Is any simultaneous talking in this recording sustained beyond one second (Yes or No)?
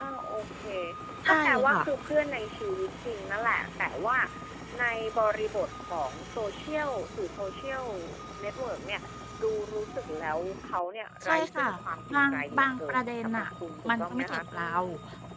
Yes